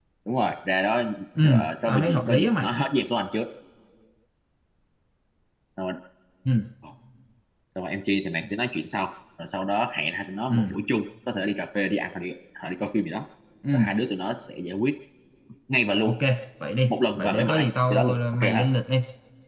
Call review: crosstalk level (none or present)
present